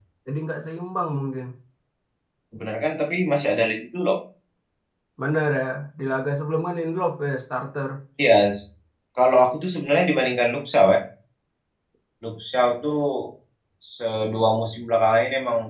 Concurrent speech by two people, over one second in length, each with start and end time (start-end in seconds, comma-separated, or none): none